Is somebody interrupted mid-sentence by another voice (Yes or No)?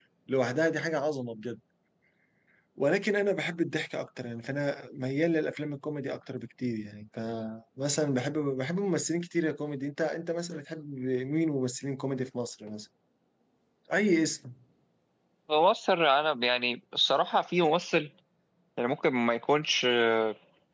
No